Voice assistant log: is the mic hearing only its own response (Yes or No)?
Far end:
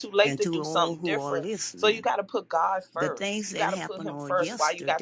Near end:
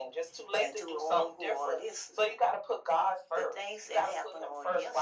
Yes